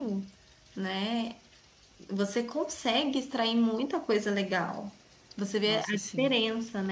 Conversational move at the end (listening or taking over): listening